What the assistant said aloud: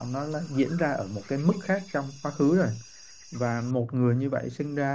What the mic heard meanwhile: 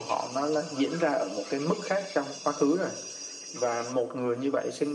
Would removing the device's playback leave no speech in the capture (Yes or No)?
Yes